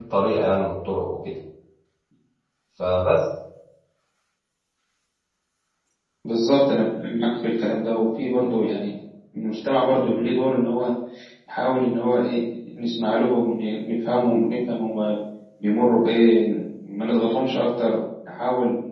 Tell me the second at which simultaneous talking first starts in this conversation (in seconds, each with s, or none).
none